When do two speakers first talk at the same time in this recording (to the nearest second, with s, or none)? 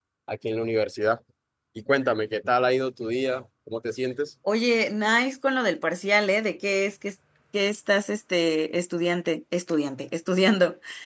none